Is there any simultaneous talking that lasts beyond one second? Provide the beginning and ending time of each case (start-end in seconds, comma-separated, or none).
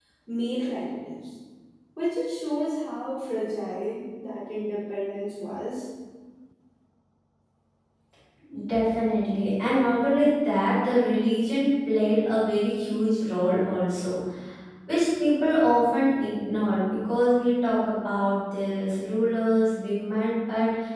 none